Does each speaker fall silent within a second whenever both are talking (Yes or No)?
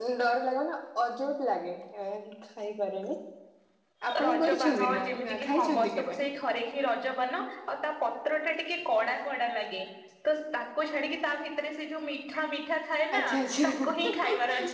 No